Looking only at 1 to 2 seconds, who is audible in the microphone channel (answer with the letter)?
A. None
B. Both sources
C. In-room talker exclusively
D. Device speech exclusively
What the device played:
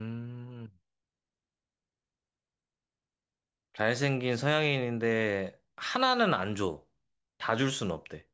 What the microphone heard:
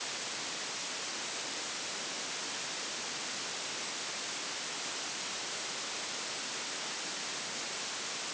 A